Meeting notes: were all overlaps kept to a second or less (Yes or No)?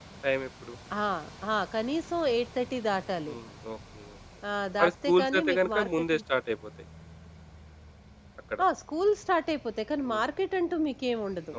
No